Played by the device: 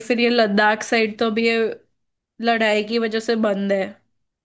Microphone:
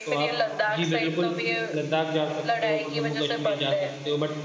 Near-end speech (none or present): present